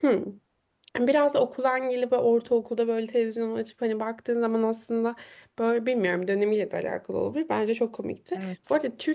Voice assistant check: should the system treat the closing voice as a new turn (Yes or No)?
No